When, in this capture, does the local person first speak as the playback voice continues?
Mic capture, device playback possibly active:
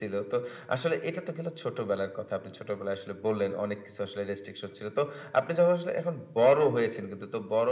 none

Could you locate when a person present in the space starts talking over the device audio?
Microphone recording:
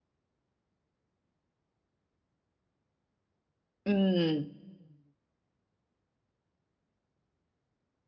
4 s

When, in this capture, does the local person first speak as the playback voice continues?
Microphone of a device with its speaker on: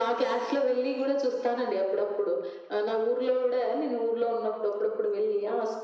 none

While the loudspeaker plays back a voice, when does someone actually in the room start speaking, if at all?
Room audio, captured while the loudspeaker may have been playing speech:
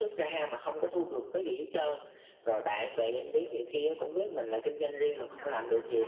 5 s

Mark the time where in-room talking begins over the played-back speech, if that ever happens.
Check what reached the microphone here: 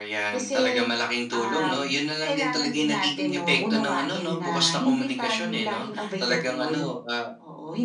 none

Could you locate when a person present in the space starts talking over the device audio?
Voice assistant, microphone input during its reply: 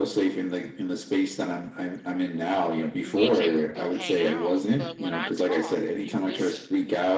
3 s

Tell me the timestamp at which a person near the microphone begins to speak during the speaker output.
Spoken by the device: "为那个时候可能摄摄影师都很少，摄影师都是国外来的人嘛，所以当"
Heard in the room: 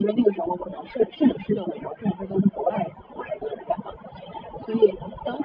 none

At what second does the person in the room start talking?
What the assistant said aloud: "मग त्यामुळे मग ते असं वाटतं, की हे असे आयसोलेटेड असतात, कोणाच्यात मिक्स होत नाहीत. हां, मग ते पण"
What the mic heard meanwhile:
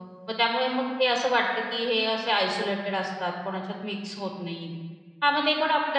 none

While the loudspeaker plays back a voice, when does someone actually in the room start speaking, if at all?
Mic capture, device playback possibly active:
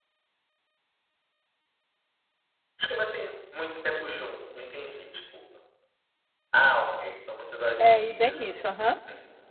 8 s

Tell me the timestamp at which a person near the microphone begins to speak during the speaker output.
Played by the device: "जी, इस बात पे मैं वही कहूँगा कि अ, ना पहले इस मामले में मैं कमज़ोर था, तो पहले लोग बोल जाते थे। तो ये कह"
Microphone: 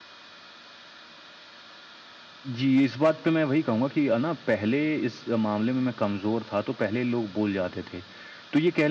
none

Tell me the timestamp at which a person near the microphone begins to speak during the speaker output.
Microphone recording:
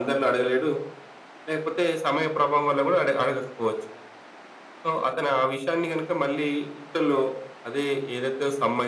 none

